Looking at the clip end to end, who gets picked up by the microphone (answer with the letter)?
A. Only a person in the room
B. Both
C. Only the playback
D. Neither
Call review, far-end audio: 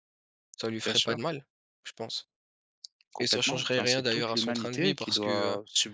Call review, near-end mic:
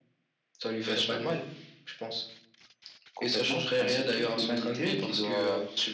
C